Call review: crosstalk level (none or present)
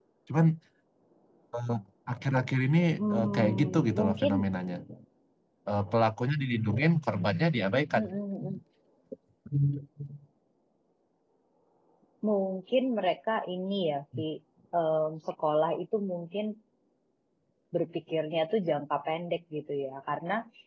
present